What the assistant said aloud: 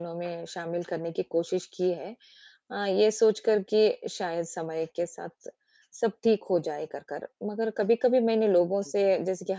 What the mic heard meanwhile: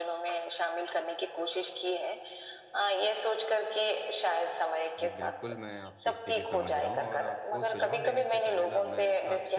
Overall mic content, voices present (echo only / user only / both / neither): both